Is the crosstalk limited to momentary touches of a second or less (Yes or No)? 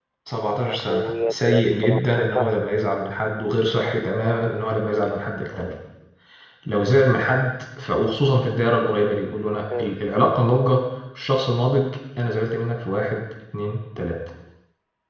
No